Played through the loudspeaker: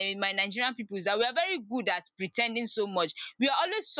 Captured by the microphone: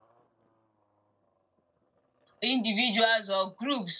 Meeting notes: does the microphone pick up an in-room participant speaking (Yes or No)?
Yes